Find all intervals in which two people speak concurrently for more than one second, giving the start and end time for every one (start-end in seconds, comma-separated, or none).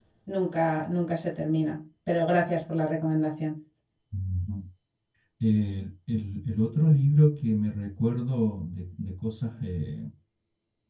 none